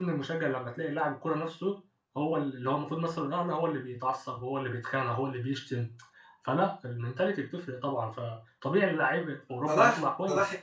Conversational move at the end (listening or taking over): taking over